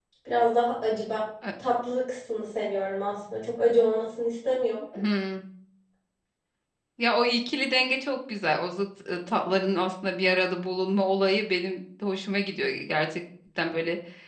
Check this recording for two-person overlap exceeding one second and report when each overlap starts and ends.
none

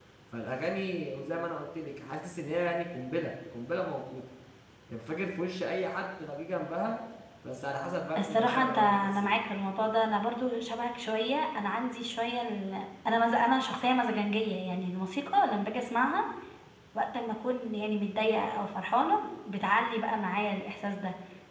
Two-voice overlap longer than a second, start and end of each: 8.2-9.4

